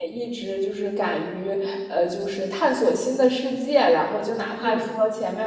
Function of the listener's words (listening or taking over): listening